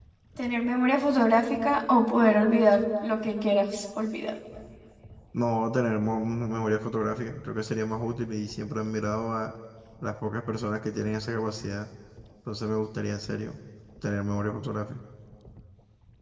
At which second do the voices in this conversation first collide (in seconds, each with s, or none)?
none